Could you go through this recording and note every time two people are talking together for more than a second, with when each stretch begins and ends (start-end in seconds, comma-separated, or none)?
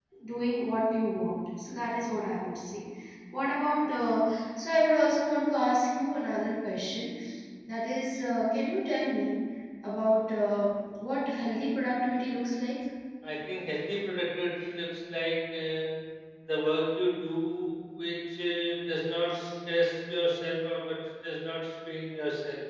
none